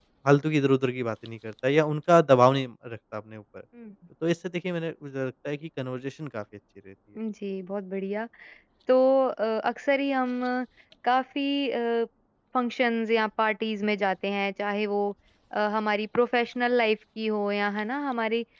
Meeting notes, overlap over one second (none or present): none